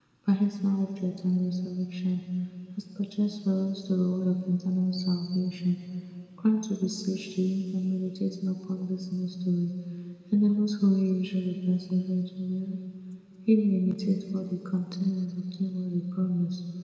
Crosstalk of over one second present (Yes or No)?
No